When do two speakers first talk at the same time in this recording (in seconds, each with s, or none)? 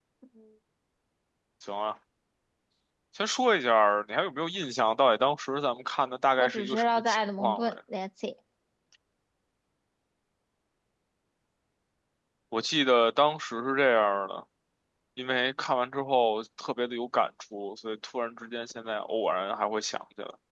6.4 s